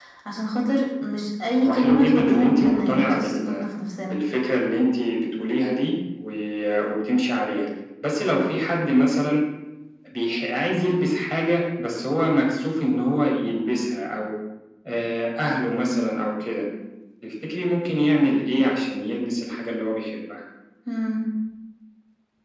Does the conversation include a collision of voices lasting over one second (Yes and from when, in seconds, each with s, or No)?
Yes, from 1.6 s